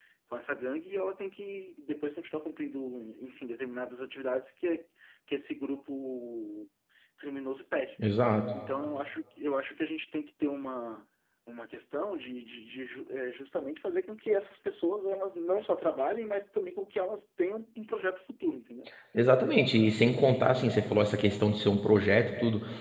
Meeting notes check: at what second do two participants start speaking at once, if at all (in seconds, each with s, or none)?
none